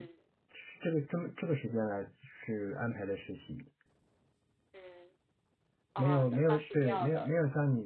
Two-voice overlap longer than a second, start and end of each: 6.0-7.4

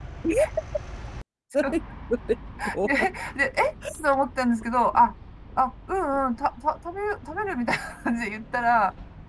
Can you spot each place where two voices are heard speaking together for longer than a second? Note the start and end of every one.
none

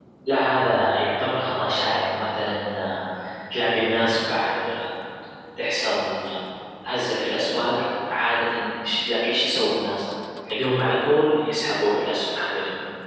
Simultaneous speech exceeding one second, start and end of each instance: none

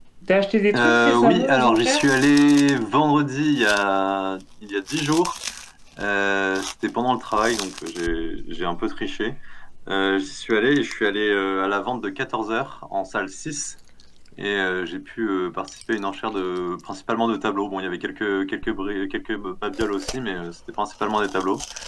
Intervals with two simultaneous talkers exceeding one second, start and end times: 0.7-2.1

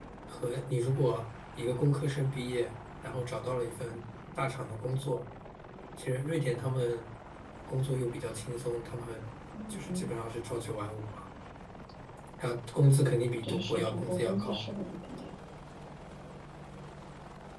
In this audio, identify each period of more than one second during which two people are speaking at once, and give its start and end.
13.4-14.7

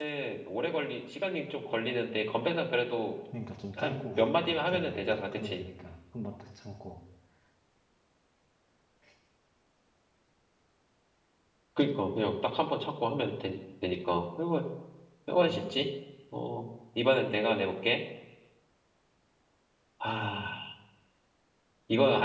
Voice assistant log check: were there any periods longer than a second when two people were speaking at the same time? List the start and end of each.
3.8-5.6

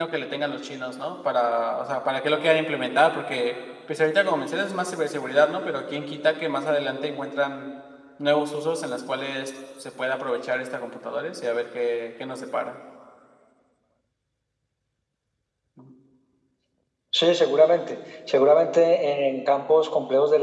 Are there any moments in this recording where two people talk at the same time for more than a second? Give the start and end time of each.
none

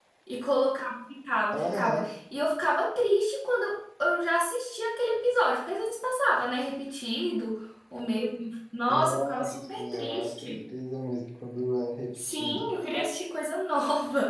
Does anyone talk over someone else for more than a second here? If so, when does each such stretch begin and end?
8.9-10.6

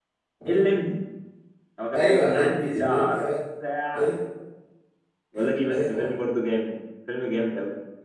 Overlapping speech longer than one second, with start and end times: 1.9-3.3

